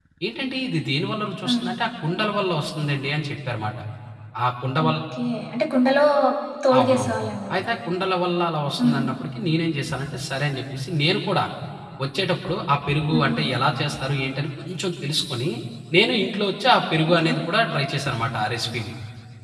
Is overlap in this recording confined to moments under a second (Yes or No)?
Yes